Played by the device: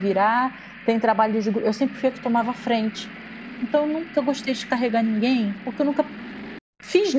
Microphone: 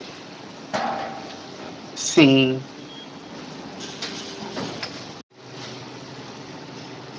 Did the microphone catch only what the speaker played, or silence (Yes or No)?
No